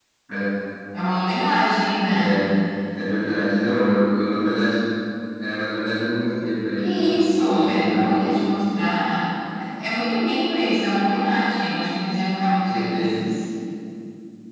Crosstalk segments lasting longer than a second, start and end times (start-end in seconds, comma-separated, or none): 6.8-8.3